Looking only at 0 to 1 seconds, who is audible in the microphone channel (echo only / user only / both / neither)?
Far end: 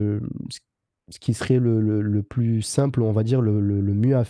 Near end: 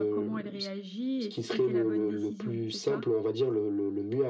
both